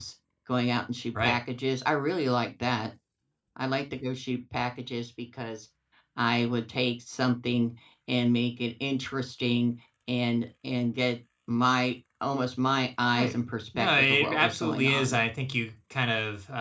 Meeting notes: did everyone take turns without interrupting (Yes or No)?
No